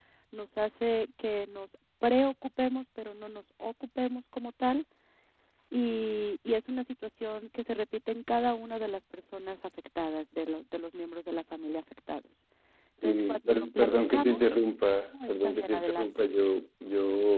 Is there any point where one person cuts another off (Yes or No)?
Yes